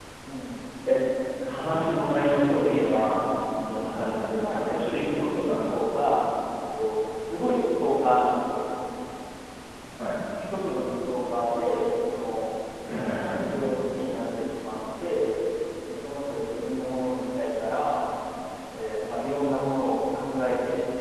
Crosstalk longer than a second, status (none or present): present